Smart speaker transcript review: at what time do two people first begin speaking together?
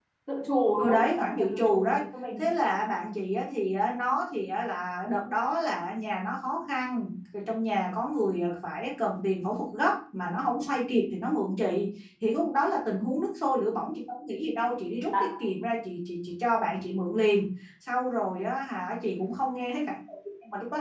0.8 s

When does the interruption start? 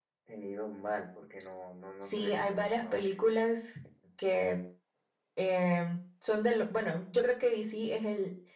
2.0 s

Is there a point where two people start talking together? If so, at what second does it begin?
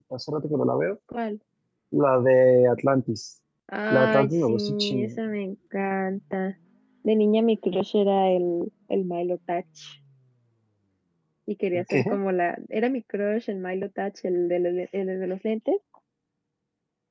3.9 s

